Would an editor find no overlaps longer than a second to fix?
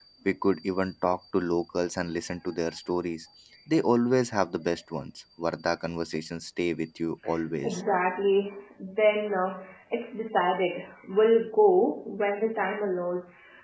Yes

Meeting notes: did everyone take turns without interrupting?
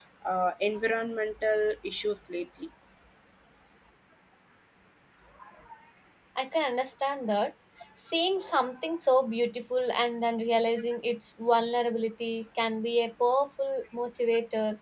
Yes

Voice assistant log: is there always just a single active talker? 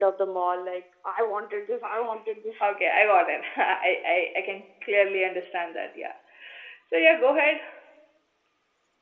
Yes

